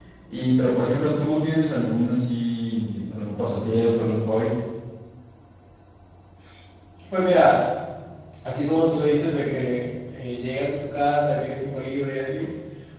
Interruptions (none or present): none